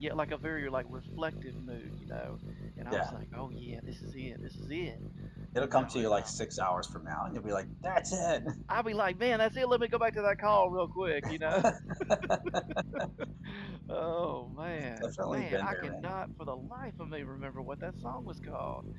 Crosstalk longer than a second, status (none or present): present